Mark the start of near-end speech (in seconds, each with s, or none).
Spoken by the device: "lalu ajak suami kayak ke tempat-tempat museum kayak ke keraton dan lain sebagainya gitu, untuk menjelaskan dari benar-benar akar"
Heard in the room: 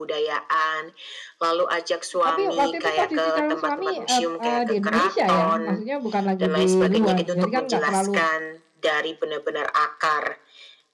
2.2 s